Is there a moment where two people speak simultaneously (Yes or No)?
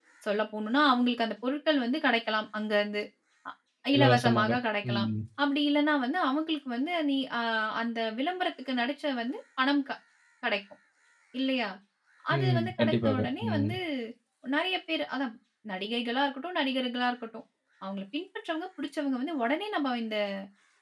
Yes